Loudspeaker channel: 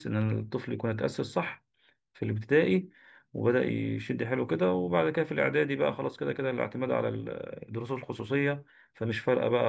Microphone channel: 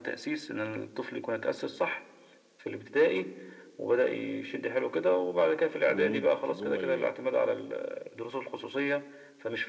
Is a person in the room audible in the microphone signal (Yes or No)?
Yes